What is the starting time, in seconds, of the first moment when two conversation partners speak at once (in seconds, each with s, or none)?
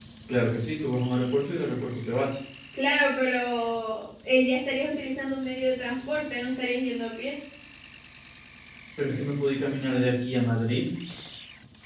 none